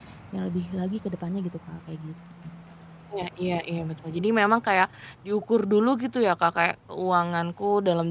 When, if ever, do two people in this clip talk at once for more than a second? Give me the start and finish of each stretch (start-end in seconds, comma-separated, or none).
none